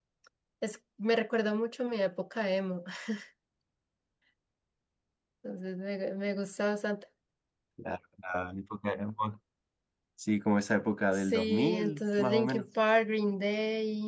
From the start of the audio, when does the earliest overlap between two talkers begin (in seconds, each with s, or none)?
11.1 s